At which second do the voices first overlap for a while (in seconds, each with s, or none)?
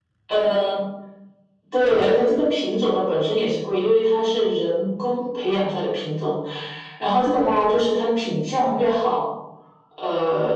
none